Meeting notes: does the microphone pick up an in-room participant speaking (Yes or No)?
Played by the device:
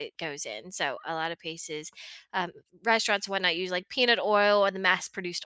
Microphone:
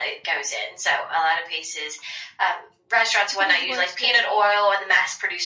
Yes